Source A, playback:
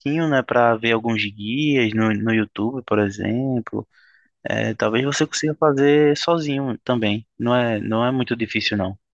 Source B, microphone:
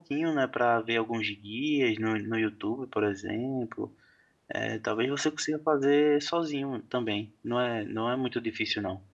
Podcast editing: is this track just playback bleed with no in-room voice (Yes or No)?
Yes